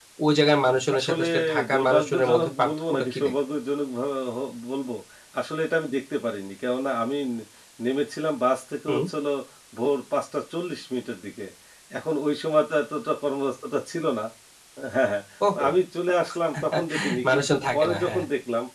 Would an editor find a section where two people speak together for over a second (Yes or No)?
Yes